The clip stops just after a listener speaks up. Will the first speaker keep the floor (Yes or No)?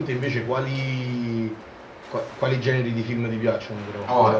No